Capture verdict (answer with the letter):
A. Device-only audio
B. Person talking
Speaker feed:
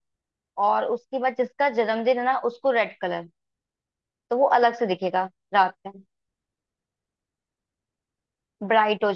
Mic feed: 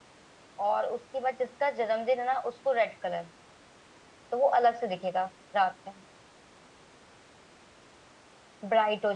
A